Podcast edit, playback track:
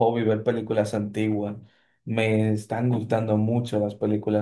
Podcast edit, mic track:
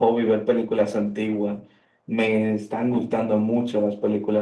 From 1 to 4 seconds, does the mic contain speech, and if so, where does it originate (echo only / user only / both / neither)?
echo only